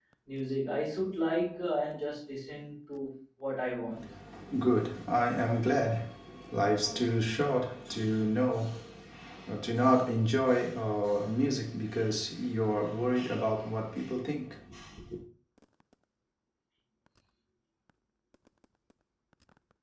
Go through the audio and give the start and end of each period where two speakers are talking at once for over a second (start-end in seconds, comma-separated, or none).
none